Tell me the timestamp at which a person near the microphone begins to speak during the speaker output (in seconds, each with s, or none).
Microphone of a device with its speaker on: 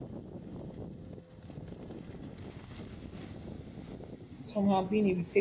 4.4 s